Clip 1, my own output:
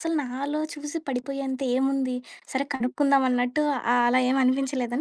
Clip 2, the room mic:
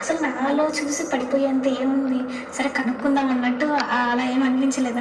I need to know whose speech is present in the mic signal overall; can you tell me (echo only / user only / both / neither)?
echo only